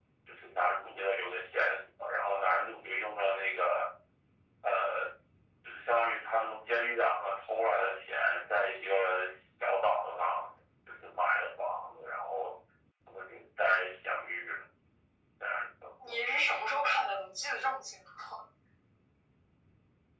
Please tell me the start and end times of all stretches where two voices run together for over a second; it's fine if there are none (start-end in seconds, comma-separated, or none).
none